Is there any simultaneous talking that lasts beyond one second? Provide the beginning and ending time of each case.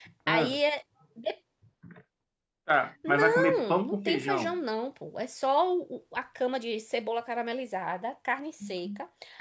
3.1-4.6

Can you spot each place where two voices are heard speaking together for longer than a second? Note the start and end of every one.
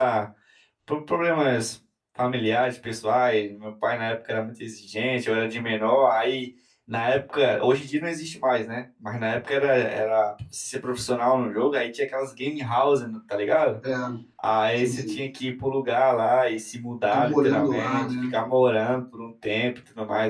17.0-18.3

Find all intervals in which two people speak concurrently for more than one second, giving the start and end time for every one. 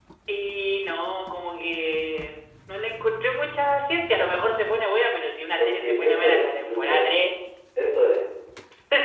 5.6-7.1

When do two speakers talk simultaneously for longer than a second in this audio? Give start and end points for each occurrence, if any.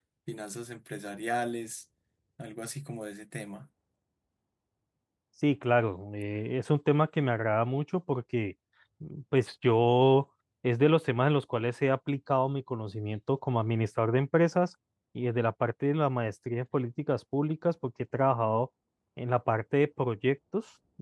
none

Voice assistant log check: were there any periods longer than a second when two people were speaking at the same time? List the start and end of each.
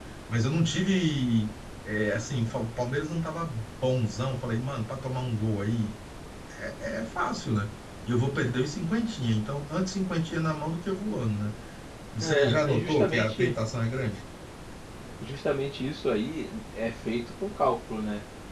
12.2-13.5

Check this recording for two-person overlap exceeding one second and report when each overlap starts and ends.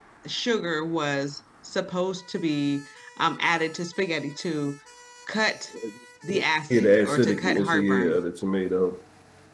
6.7-8.2

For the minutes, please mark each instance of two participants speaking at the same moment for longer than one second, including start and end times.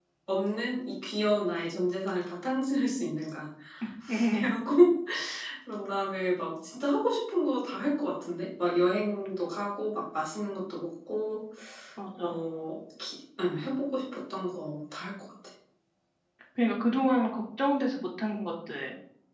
none

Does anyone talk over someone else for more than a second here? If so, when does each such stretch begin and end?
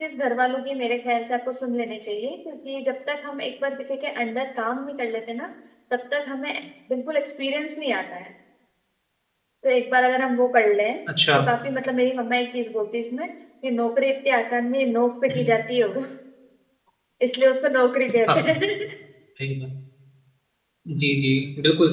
none

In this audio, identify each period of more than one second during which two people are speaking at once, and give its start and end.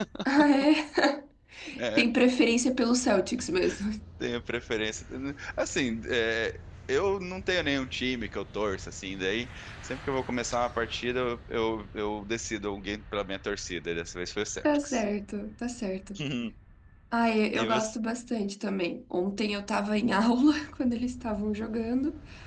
none

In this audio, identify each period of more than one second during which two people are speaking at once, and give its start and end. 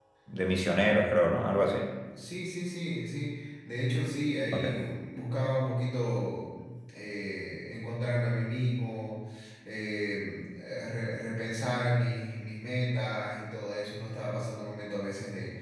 none

